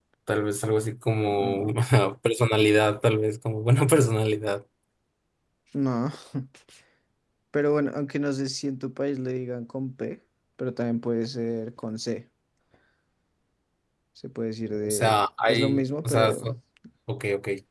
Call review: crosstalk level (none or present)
present